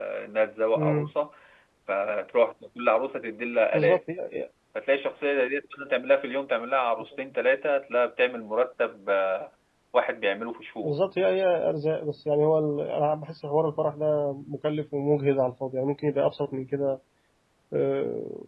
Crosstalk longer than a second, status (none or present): none